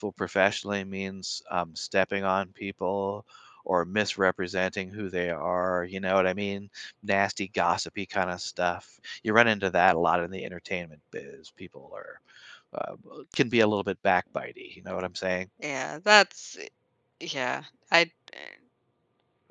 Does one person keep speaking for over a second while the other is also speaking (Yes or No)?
No